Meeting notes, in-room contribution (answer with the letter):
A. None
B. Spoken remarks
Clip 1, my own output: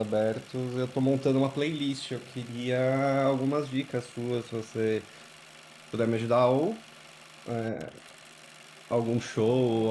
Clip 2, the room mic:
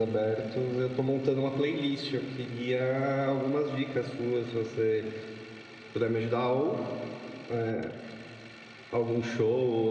A